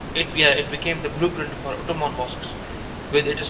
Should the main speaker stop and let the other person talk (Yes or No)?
No